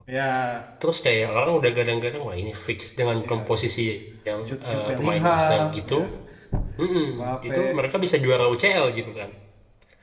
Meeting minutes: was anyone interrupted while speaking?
Yes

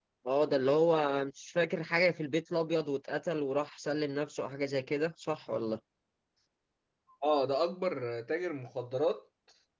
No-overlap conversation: Yes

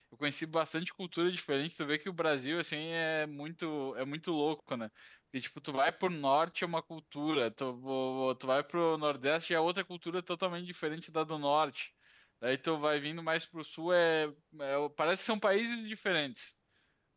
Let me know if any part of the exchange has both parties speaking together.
No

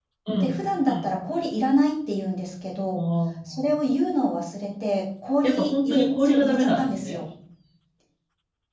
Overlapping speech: Yes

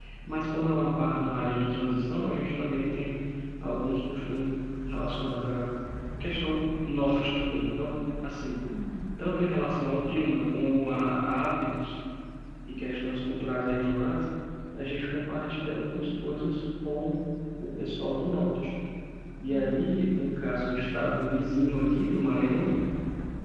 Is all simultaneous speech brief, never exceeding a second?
No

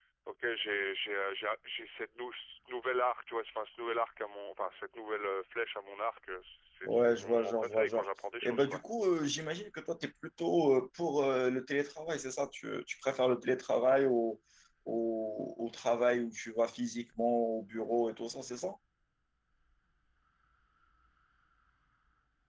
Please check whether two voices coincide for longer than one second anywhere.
Yes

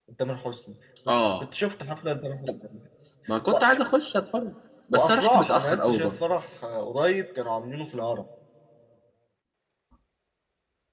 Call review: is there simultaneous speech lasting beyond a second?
Yes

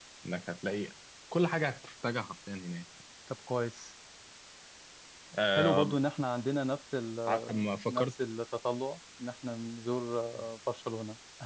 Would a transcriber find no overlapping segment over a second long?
Yes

